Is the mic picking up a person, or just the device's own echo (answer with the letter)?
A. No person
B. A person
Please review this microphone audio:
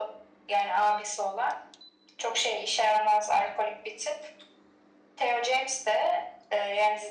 A